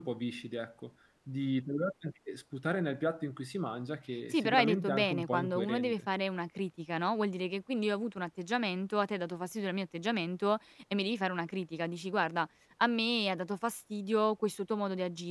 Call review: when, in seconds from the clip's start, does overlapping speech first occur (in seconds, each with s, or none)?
4.3 s